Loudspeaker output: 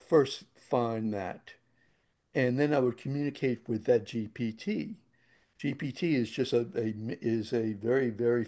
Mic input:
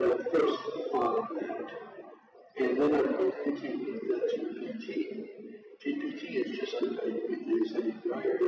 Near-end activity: none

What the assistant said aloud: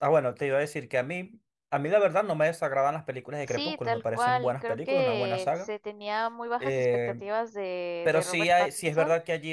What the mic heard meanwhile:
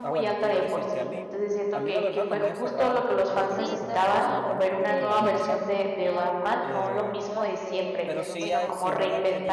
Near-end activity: present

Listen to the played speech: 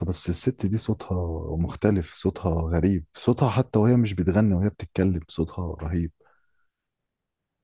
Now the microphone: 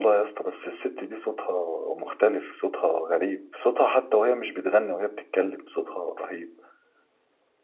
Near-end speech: none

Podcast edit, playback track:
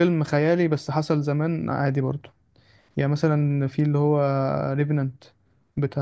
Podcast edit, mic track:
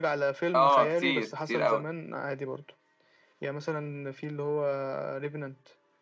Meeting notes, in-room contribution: present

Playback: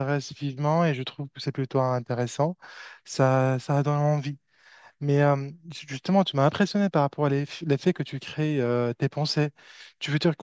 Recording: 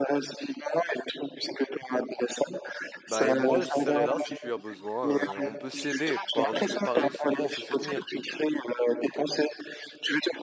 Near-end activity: present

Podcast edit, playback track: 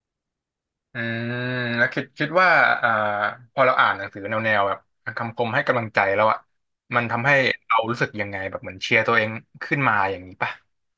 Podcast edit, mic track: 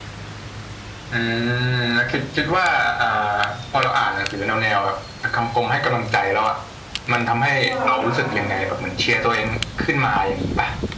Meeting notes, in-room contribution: present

